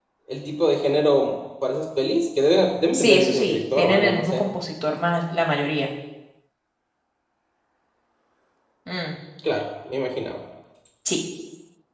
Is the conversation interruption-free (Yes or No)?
No